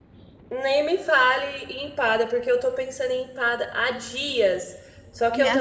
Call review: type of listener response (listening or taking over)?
listening